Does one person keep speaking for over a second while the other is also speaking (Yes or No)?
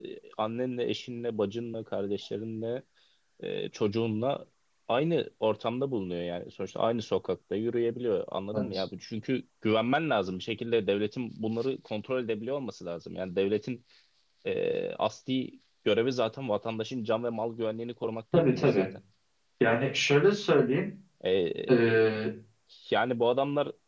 No